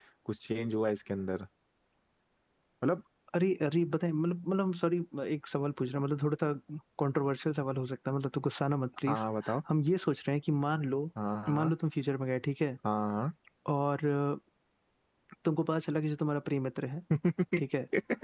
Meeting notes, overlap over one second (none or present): none